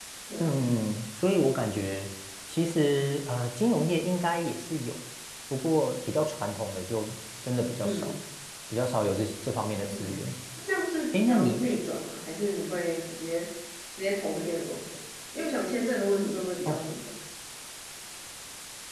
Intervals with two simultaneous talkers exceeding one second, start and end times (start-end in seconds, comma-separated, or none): none